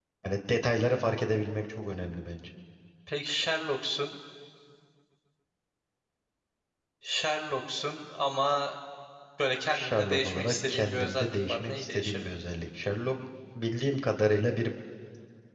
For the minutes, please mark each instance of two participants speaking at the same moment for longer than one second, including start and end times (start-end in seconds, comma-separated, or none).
9.7-12.4